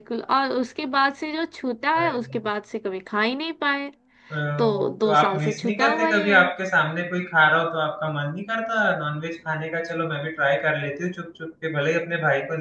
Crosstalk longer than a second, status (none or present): present